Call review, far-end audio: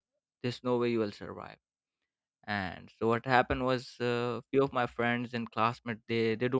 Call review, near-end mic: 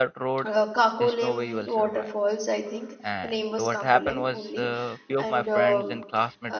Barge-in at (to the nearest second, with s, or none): 0 s